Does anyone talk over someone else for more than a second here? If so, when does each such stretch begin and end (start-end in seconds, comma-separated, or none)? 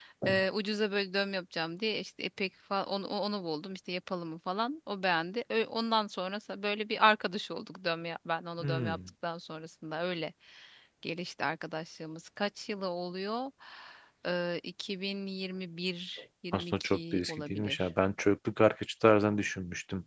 16.5-17.9